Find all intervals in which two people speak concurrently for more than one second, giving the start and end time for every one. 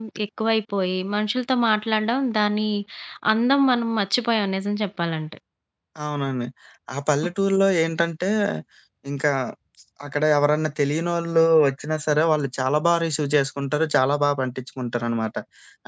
none

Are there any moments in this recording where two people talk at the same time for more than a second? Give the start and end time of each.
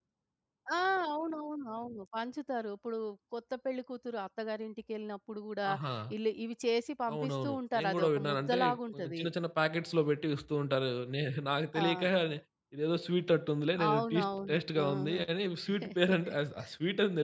7.1-9.2, 13.9-15.2

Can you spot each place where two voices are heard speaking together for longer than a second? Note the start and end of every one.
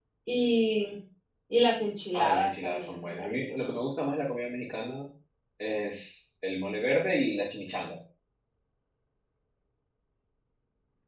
2.1-3.8

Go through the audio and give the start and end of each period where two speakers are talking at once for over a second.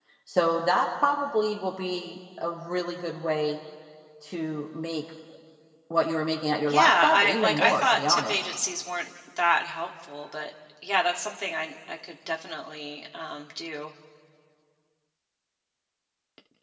6.7-8.4

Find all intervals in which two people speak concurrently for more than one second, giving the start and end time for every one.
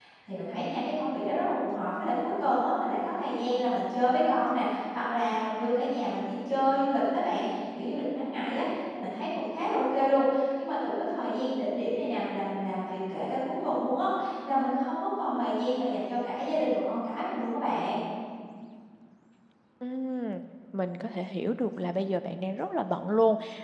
none

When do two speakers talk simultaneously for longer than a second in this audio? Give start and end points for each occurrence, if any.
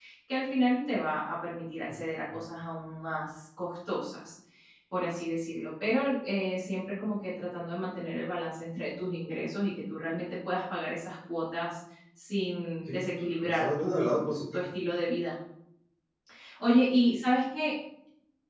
12.8-14.7

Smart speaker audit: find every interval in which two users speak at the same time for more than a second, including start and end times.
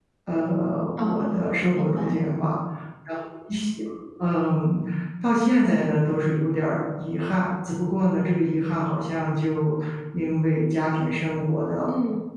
1.0-2.2

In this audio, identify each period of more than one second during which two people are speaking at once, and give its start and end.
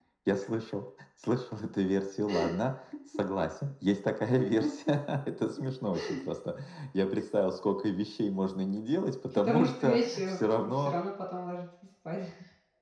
9.3-10.9

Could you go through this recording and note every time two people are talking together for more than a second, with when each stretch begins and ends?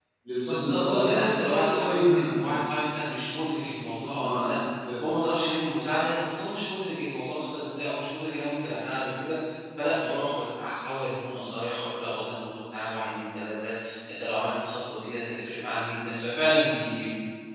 0.5-2.5

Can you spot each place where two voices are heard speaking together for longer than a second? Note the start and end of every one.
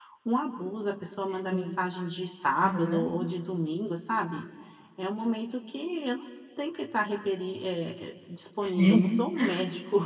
none

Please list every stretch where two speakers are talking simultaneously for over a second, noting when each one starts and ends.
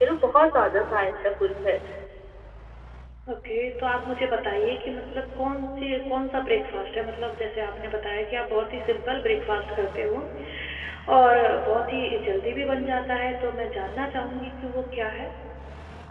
none

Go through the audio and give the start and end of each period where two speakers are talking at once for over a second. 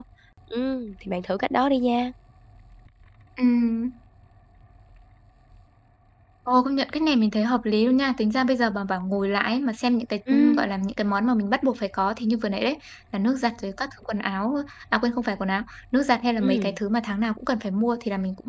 none

